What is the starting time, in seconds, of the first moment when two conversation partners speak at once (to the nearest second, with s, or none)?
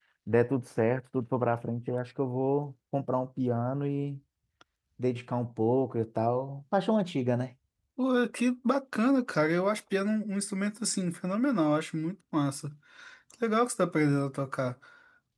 none